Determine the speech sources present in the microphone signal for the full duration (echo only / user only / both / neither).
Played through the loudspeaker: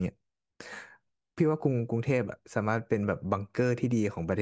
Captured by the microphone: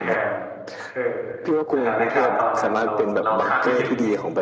both